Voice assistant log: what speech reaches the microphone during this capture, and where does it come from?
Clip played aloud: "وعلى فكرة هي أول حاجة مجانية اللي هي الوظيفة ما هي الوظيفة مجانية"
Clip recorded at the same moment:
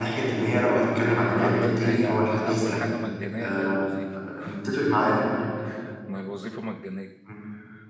both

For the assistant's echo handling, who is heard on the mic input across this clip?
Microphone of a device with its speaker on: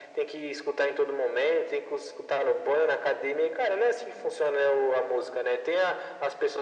echo only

